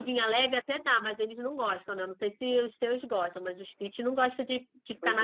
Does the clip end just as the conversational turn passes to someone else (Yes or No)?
Yes